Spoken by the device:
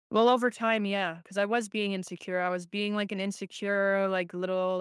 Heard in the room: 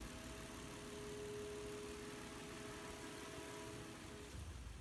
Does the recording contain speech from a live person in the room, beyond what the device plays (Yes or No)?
No